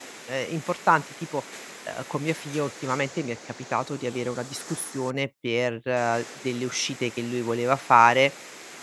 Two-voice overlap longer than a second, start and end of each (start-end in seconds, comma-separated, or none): none